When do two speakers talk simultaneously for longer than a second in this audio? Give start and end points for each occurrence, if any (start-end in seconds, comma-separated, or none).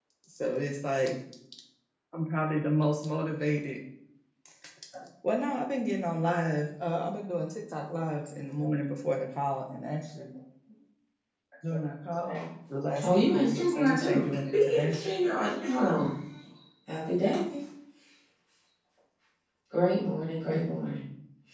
13.0-14.9